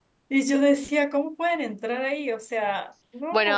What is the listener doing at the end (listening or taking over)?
taking over